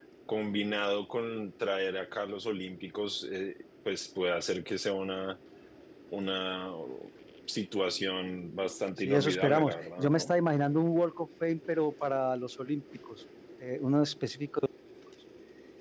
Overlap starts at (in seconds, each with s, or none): 9.0 s